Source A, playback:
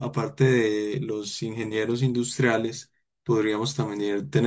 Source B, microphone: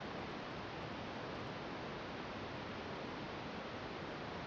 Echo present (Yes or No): No